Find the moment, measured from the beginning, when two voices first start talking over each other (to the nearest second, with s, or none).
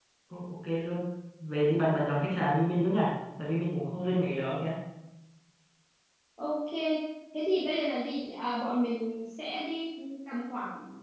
none